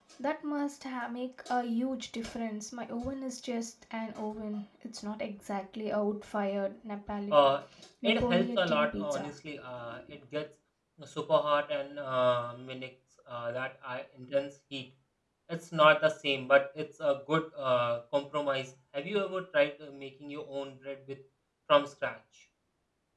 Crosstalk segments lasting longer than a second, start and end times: 8.0-9.3

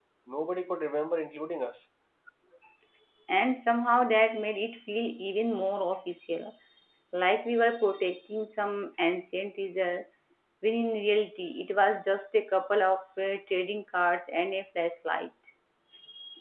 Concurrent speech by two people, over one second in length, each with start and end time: none

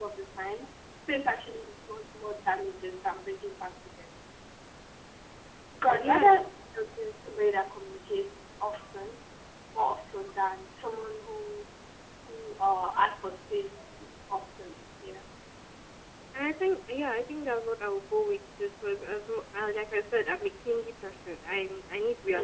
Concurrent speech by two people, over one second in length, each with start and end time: none

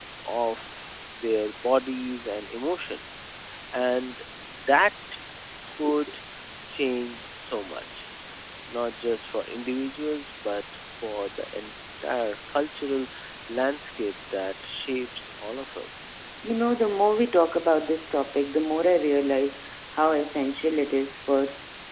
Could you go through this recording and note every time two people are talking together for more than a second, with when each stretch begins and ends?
none

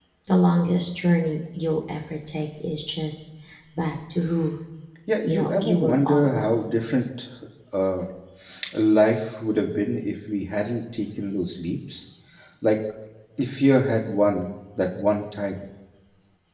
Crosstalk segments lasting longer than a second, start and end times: 5.2-6.7

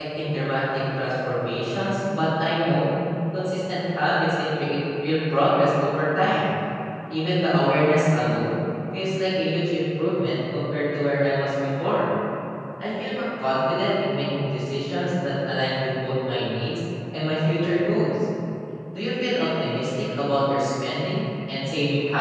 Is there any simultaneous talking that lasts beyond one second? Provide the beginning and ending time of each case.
none

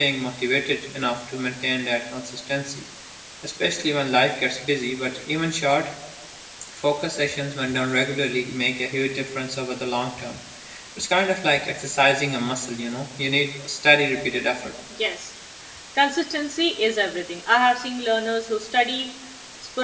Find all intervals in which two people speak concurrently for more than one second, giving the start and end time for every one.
none

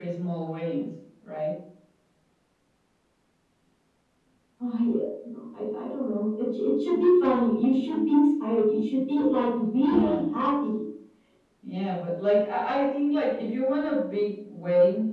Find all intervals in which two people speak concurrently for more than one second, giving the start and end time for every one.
none

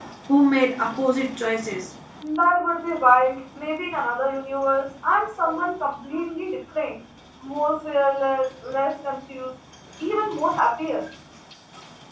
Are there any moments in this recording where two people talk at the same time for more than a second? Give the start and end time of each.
none

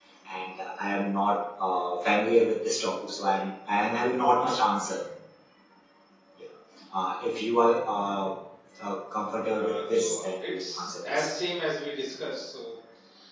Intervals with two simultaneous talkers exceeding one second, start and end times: 9.6-11.3

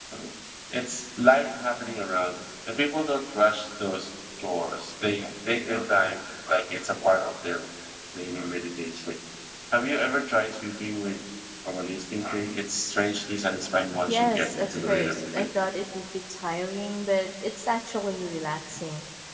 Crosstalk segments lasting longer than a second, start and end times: 14.1-15.5

